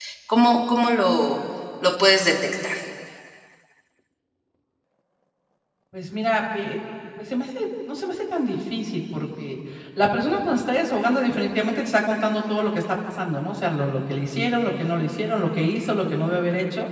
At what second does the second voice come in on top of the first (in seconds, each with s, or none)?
none